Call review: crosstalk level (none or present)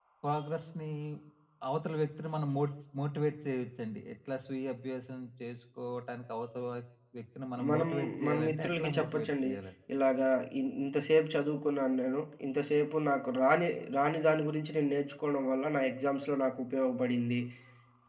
present